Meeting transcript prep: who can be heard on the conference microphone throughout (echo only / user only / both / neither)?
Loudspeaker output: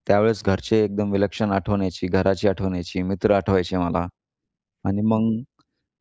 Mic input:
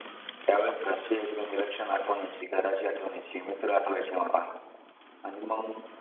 echo only